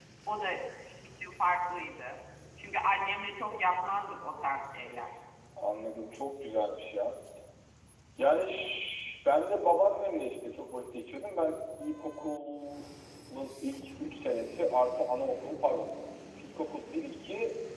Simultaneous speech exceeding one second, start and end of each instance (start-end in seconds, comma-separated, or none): none